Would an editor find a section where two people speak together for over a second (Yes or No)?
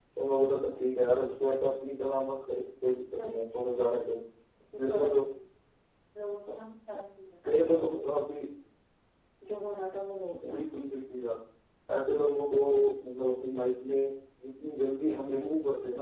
No